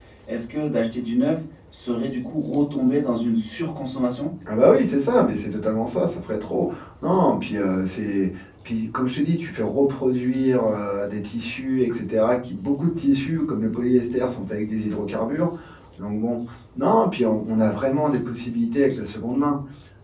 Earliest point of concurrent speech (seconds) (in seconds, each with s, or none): none